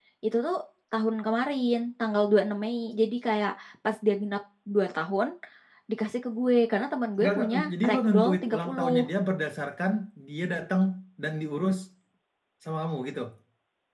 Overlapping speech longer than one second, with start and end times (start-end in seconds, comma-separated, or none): 7.2-8.9